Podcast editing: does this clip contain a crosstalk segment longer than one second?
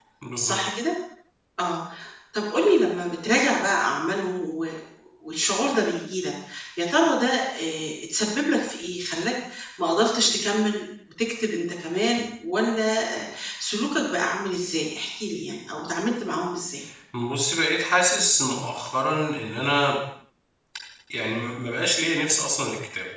No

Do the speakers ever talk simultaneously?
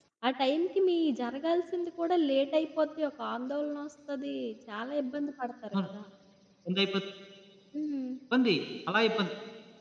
No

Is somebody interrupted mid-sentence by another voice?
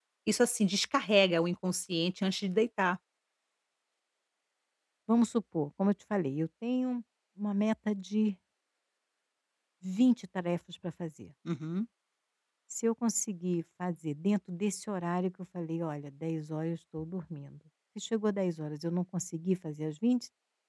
No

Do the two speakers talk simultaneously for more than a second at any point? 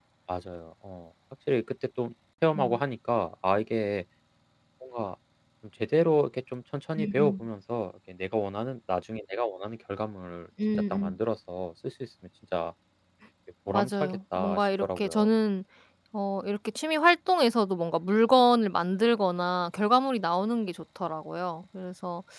Yes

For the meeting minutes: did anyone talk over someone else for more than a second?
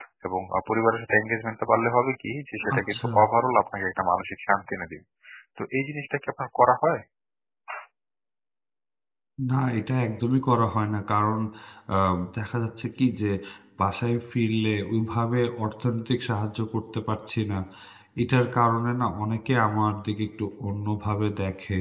No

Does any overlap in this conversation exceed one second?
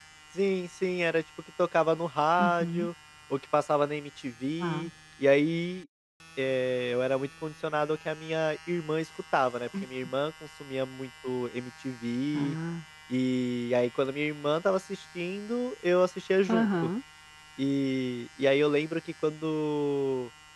No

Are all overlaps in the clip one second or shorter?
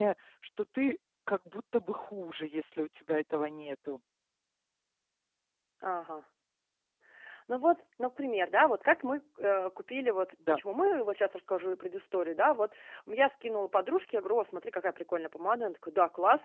Yes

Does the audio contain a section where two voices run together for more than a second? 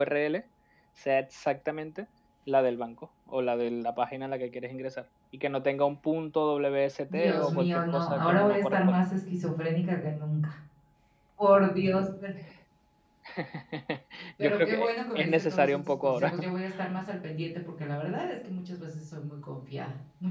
Yes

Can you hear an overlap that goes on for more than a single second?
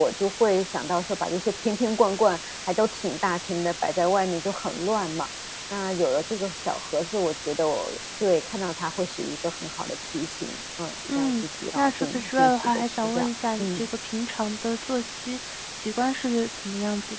Yes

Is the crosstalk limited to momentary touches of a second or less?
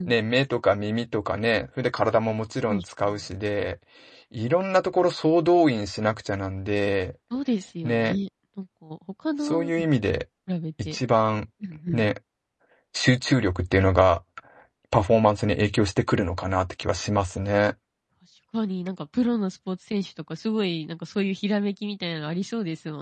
Yes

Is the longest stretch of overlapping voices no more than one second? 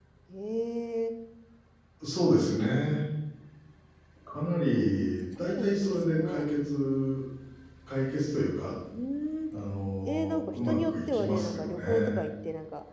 No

